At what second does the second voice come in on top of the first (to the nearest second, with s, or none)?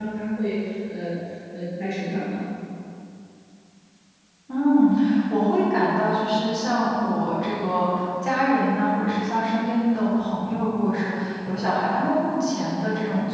none